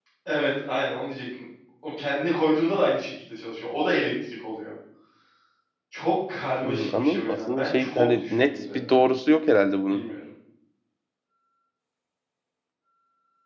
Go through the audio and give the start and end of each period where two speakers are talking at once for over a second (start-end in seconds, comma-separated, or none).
6.6-8.9